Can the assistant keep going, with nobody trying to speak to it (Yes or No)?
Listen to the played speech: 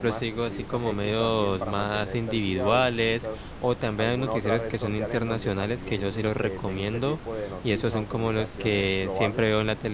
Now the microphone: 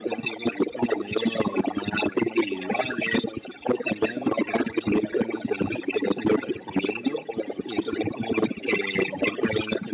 Yes